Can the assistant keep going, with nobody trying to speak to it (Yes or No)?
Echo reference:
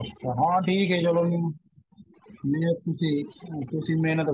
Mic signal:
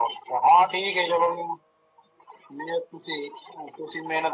Yes